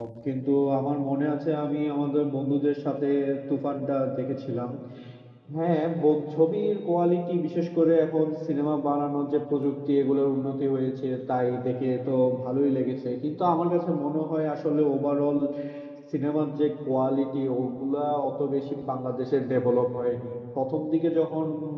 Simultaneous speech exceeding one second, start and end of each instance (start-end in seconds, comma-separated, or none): none